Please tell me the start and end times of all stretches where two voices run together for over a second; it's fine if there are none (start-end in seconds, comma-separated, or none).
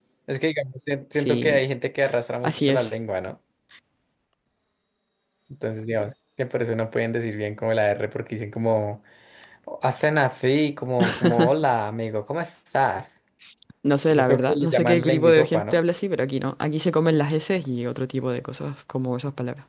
14.1-15.8